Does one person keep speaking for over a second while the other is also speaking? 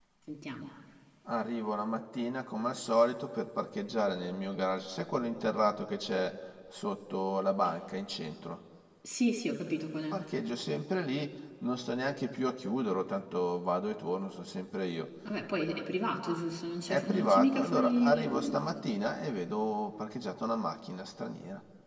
Yes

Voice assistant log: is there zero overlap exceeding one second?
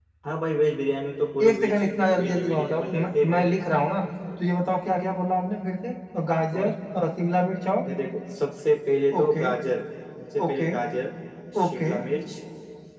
No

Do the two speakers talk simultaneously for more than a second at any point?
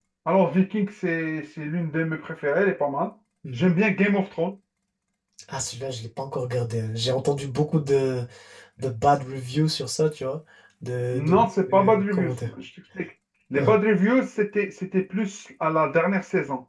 Yes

